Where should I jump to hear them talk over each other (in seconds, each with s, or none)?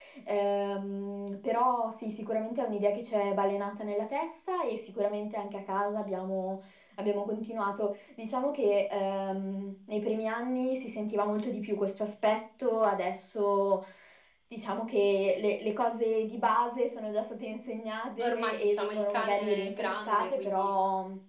18.2 s